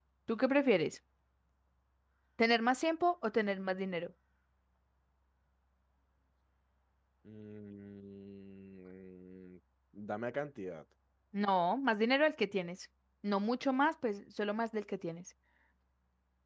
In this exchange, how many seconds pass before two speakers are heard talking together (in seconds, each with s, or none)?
none